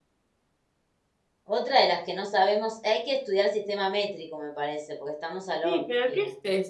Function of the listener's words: taking over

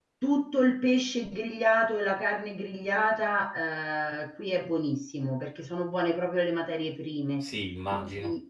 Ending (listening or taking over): listening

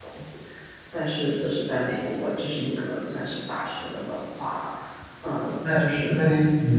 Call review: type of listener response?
taking over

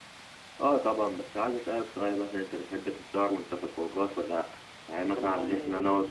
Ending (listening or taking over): listening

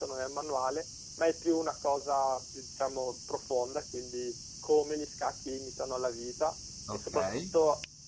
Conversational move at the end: listening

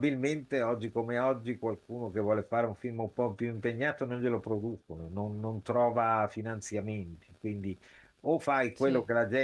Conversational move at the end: listening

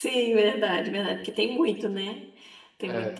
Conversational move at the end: listening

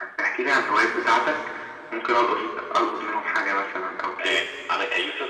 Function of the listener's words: taking over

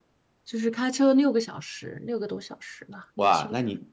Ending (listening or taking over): taking over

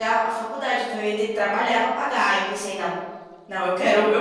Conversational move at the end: taking over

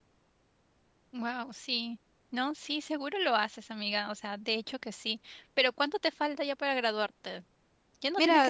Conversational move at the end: taking over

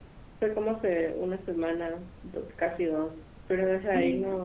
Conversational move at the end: listening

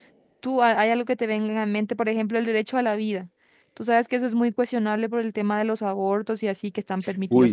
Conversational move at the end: taking over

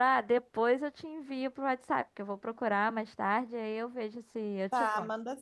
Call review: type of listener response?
taking over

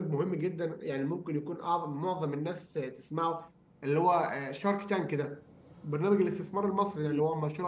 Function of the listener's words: listening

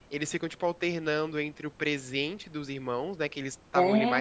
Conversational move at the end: listening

